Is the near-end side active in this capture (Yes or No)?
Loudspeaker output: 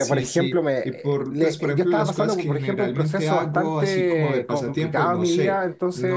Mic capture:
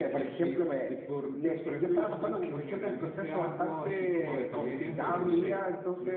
Yes